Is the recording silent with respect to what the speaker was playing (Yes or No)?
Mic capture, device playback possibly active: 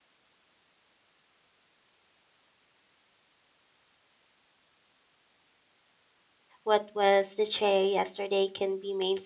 Yes